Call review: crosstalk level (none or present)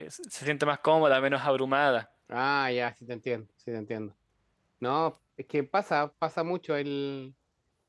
none